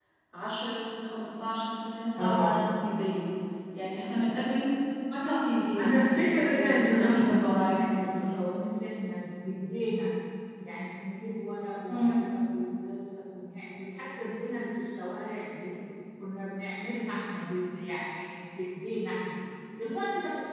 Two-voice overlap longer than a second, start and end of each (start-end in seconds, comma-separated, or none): 5.8-8.2